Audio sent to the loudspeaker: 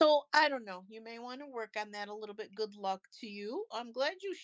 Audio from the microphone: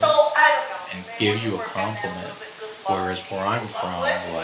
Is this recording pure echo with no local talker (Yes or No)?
No